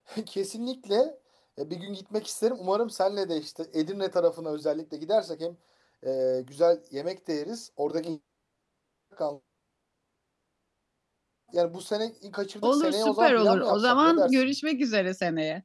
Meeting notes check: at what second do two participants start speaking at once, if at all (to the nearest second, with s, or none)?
13 s